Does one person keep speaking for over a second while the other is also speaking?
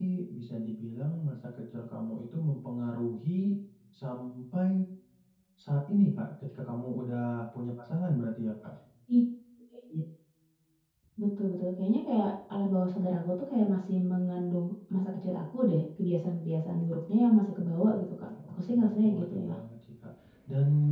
Yes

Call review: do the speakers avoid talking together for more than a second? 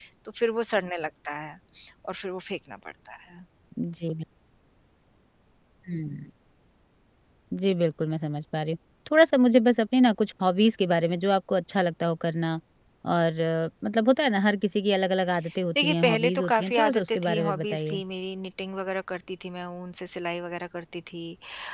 No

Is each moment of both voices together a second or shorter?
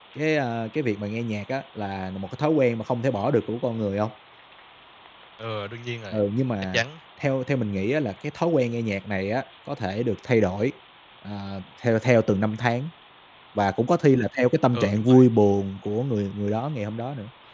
Yes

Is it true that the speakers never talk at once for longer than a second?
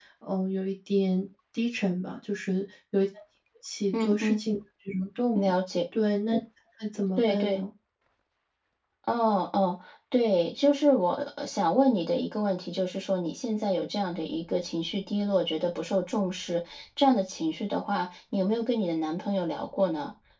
Yes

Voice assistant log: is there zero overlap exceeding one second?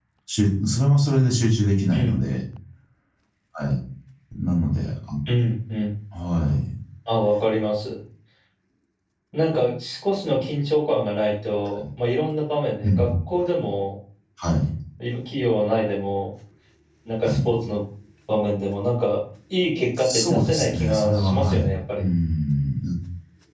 No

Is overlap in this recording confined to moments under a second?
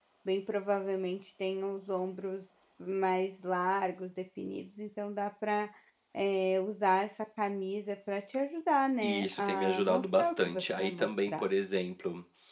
No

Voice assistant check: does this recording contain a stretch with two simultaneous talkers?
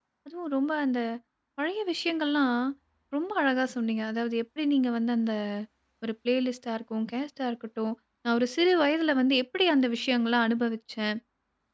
No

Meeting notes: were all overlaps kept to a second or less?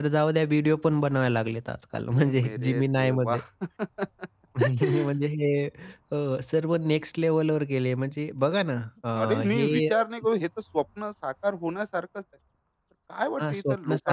No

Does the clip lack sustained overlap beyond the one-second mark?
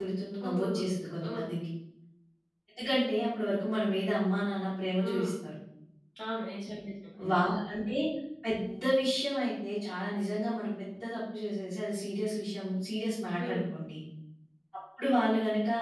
Yes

